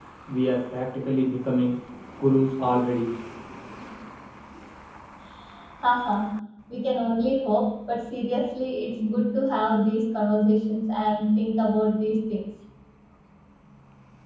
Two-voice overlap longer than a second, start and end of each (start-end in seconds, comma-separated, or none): none